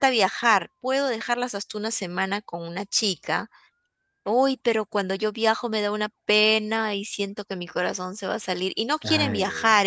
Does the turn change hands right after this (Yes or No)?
No